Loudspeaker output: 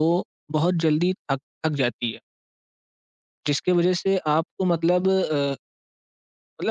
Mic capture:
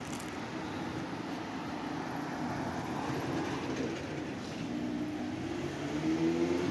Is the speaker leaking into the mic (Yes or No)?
No